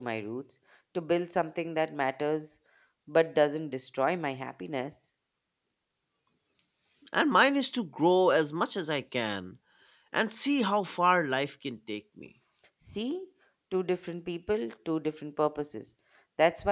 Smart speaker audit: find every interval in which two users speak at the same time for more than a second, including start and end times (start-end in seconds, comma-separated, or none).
none